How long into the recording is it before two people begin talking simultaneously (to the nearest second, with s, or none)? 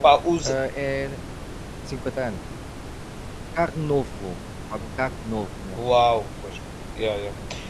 none